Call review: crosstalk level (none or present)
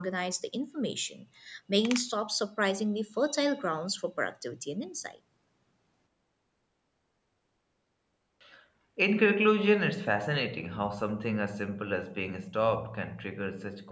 none